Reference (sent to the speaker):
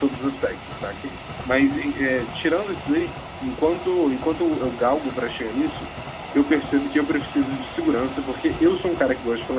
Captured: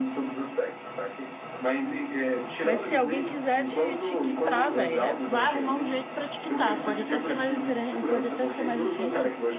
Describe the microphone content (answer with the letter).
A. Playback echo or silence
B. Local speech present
B